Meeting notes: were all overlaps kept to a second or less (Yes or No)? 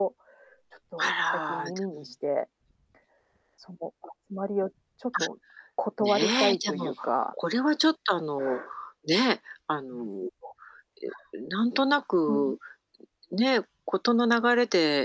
No